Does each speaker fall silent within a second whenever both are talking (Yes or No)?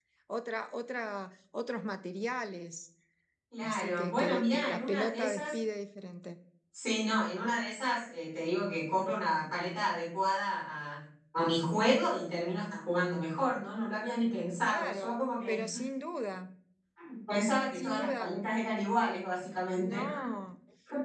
No